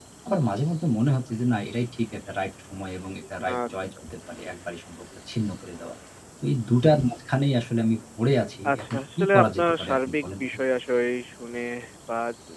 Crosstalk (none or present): present